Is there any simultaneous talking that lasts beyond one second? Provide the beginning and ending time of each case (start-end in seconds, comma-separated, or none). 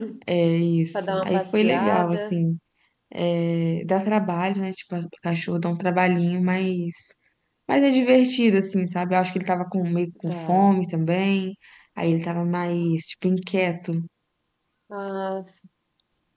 0.9-2.4